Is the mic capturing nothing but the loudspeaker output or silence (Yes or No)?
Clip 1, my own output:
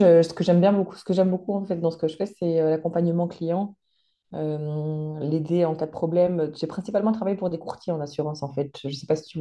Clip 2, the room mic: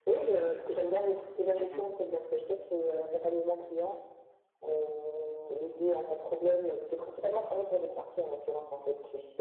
No